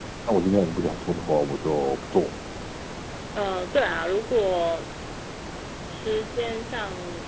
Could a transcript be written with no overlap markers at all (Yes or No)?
Yes